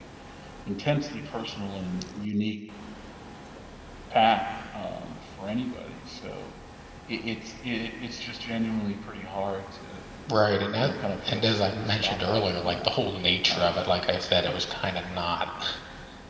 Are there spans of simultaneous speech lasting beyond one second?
Yes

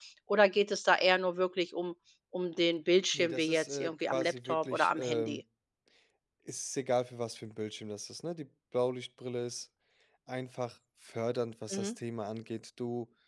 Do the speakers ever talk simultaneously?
Yes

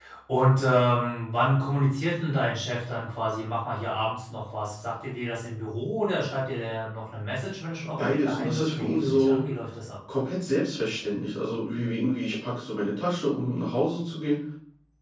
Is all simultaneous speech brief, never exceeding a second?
No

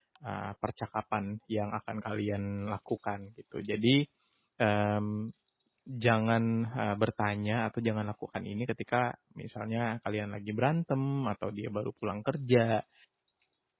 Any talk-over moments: No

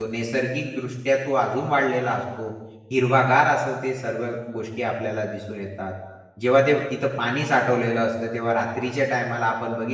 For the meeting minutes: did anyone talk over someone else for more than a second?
No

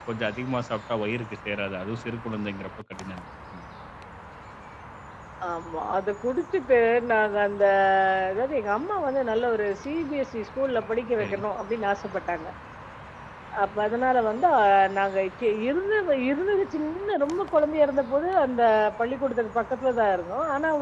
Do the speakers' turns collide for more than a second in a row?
No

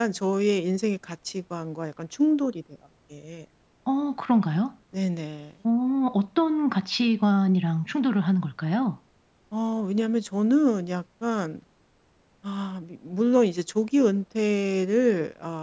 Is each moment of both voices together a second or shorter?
Yes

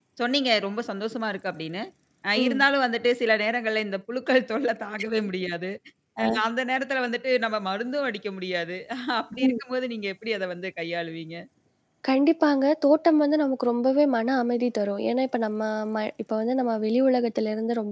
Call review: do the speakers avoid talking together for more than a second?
Yes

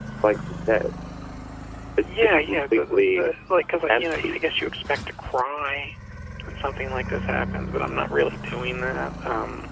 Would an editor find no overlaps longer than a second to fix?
No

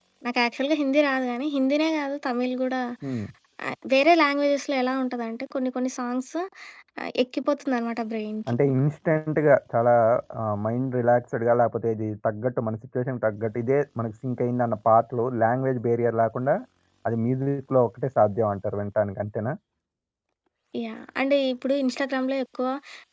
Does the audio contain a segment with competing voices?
No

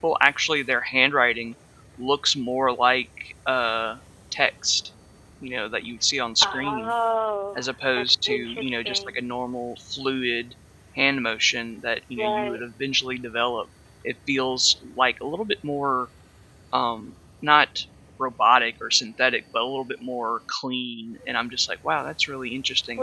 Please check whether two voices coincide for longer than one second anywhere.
Yes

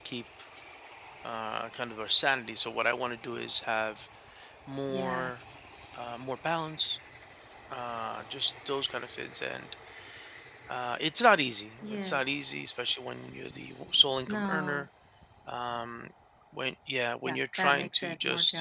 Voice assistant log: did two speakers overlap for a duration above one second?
Yes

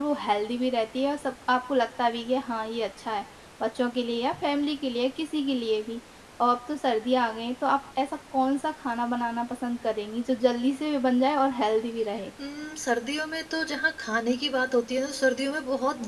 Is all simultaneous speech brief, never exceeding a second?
Yes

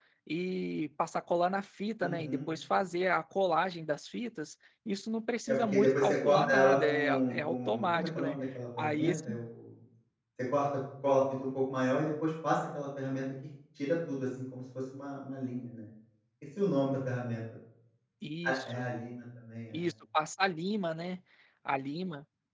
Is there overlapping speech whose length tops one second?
Yes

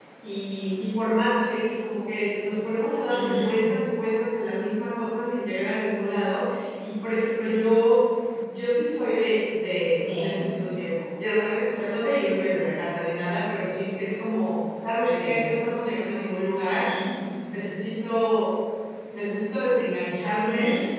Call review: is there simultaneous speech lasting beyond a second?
No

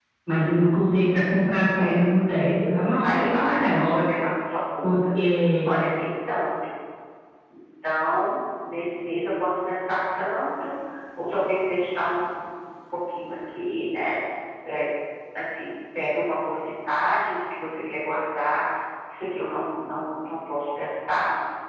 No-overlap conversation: No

